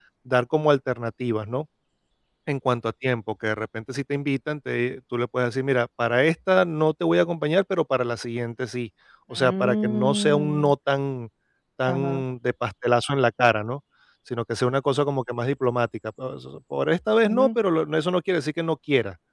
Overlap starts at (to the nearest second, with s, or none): 9 s